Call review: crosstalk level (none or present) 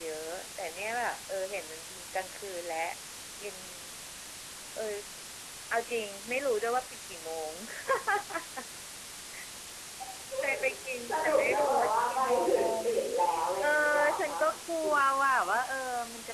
present